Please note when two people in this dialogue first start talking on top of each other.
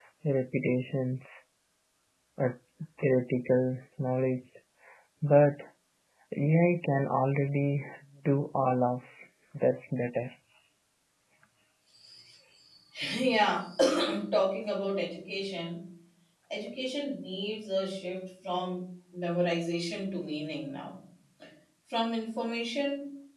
none

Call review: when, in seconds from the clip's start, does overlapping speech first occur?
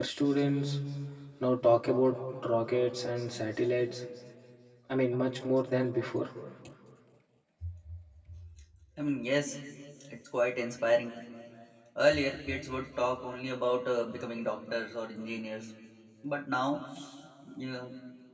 none

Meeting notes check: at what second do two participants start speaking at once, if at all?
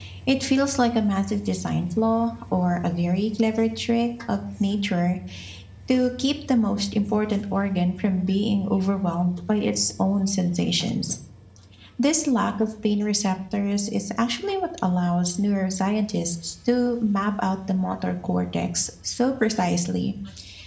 none

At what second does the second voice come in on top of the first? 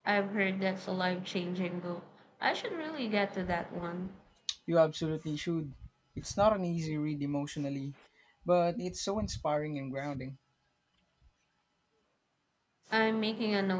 none

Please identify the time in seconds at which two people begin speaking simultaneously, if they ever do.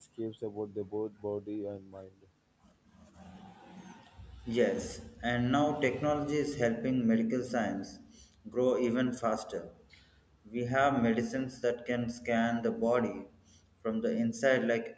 none

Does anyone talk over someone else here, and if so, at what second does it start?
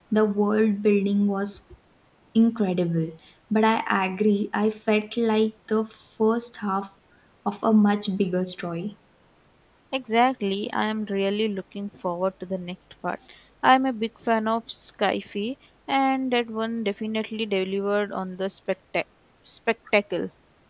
none

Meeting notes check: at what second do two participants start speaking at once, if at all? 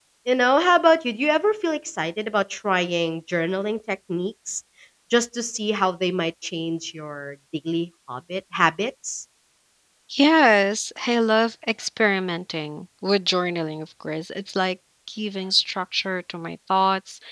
none

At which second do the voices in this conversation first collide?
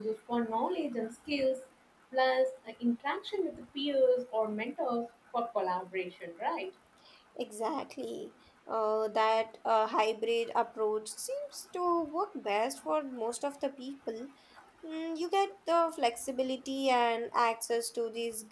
none

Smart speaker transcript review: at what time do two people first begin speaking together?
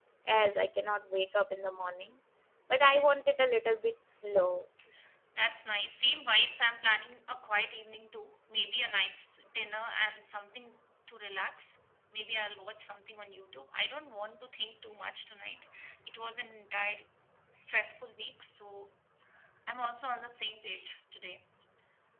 none

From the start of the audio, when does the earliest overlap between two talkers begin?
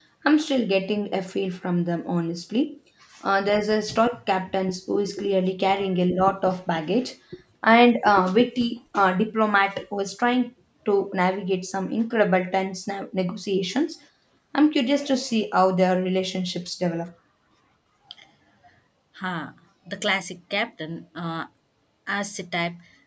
none

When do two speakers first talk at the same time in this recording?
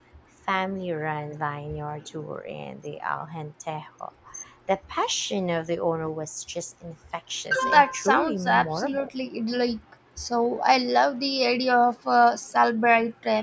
8 s

